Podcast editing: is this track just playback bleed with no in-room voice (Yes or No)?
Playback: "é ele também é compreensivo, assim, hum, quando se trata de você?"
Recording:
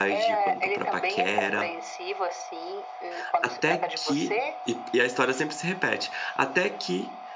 No